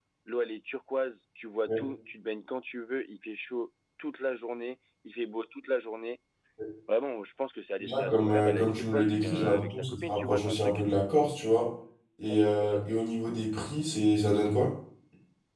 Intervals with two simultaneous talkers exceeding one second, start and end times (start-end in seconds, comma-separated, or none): 7.8-10.8